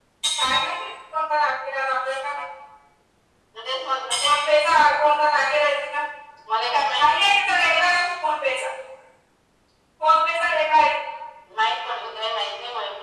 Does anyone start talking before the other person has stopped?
No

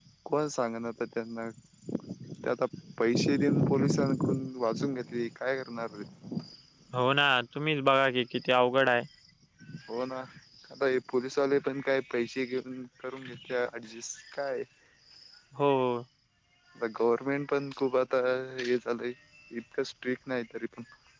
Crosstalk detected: No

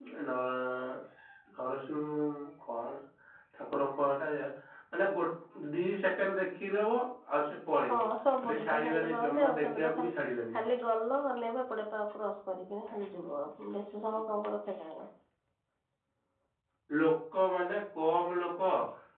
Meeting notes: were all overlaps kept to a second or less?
No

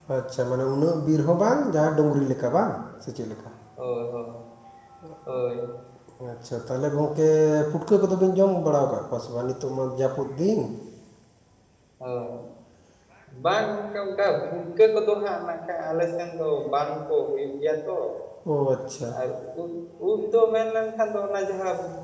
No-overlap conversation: Yes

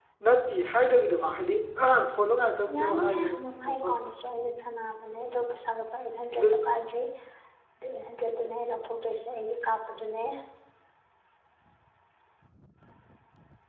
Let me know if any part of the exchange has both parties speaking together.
Yes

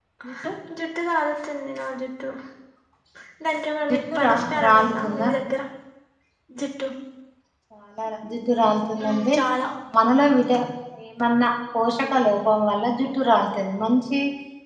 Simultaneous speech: Yes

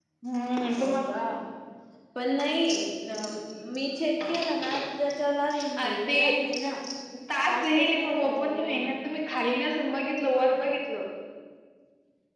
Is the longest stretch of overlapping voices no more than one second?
No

